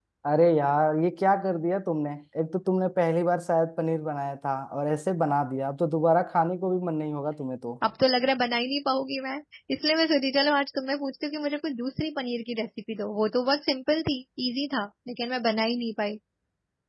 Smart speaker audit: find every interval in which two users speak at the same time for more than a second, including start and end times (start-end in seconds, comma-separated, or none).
none